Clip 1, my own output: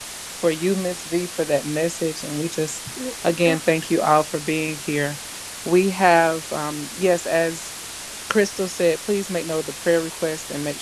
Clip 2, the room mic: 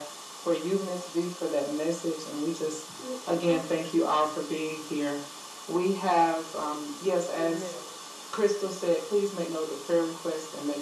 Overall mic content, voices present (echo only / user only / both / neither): both